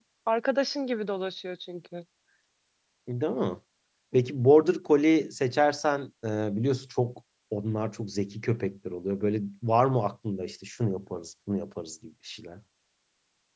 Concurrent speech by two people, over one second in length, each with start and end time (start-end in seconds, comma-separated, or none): none